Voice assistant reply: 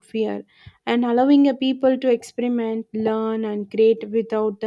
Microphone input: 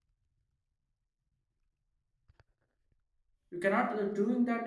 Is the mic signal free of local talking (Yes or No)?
No